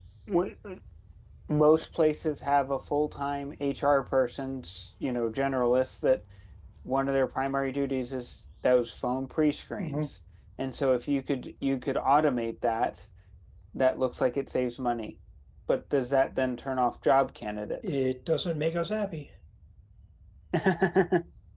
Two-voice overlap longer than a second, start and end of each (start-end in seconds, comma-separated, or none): none